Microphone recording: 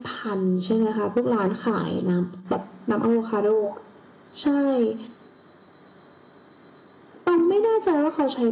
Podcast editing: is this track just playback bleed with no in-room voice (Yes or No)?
Yes